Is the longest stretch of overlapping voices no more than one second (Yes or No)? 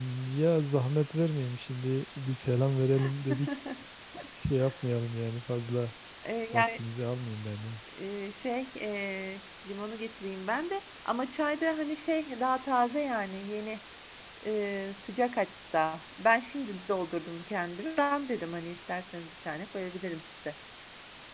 Yes